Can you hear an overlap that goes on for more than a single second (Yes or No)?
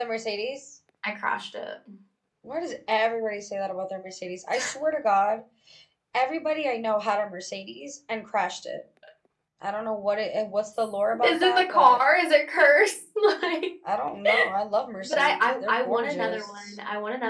Yes